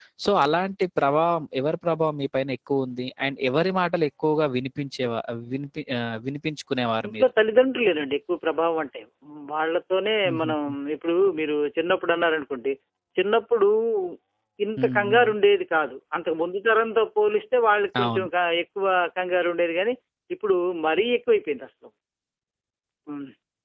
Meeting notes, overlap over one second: none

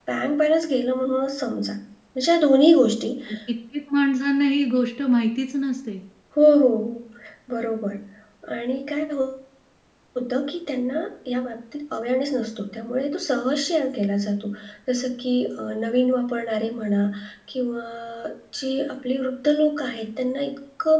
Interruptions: none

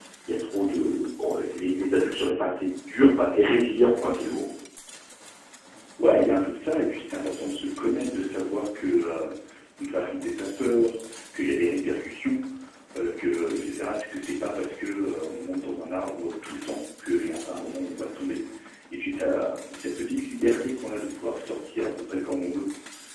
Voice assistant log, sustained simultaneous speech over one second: none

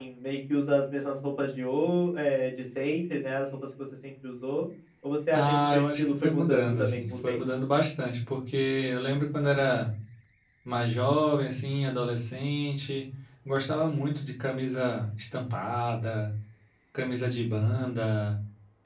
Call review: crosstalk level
present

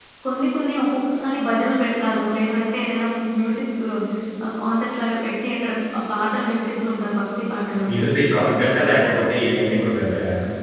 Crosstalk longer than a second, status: none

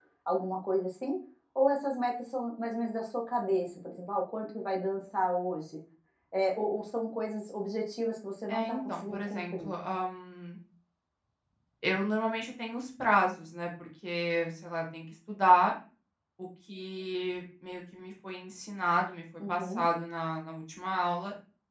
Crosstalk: present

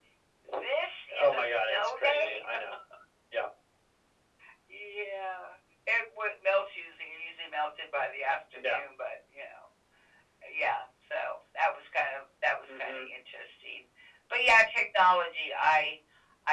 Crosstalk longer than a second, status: present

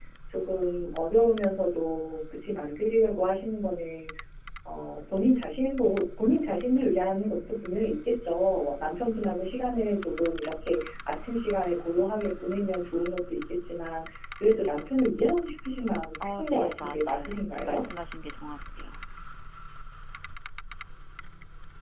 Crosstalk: present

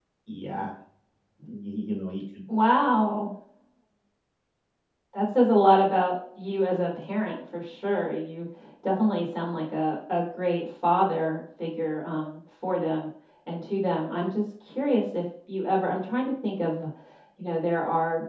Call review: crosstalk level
none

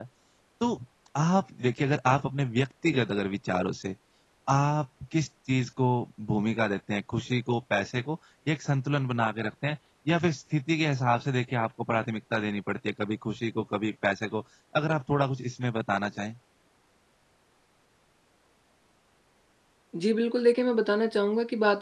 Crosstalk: none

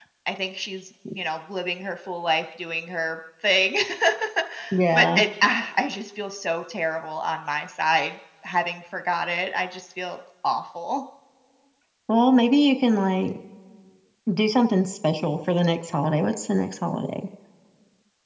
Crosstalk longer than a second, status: none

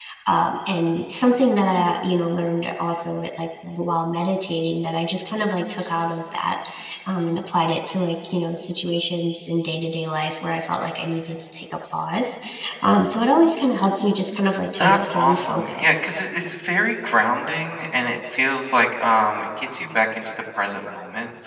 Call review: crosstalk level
present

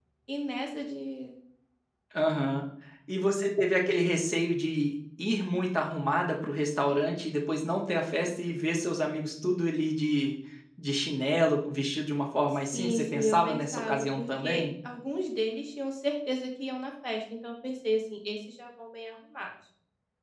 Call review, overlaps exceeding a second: present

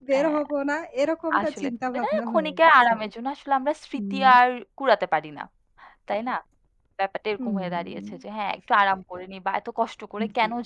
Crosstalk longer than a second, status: present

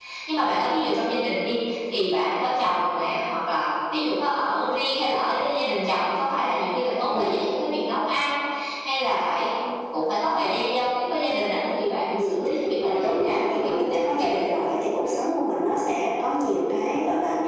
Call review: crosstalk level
present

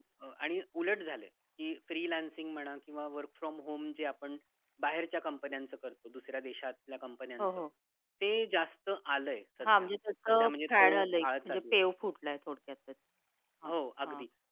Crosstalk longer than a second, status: present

